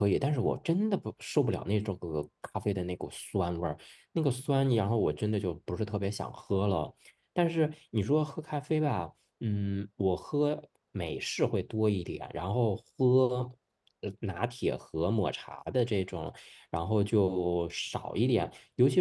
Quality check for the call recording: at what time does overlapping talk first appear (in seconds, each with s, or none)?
none